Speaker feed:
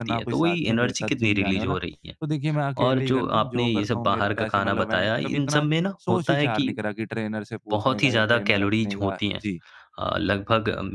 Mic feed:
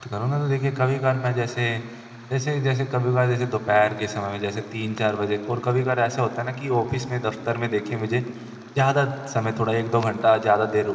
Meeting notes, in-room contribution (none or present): present